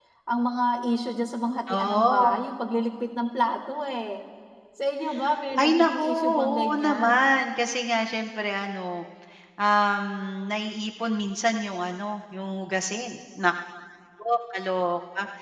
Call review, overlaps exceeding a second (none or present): present